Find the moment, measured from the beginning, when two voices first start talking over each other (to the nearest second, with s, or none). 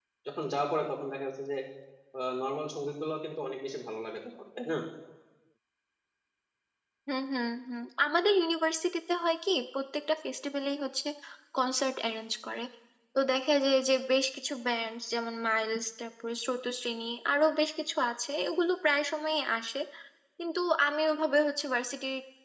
none